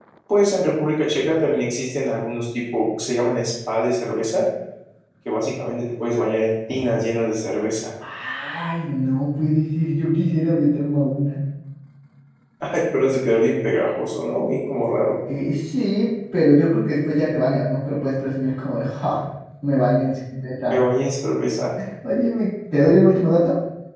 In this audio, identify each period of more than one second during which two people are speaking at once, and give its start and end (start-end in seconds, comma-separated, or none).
none